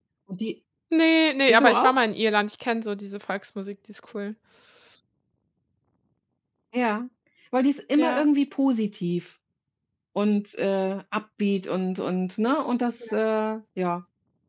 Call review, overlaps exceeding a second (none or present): none